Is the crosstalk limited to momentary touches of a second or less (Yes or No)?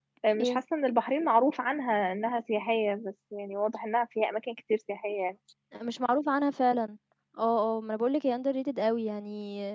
Yes